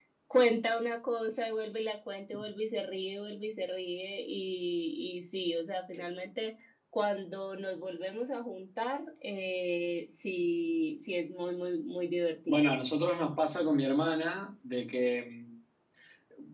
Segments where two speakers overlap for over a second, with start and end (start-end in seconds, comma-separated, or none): none